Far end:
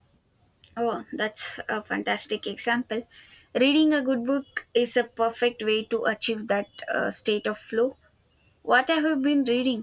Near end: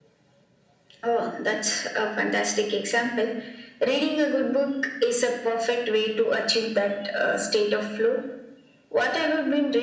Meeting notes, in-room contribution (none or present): none